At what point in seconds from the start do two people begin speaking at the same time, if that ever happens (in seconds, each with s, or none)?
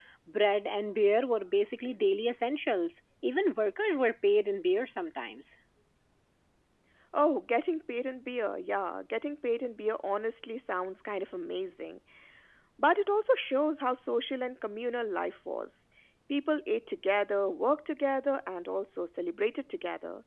none